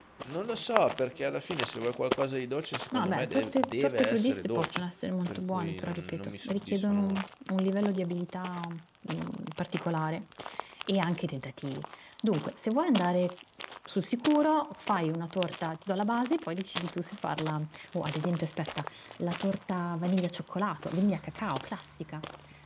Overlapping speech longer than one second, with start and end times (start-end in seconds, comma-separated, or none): 2.9-4.8, 5.3-7.2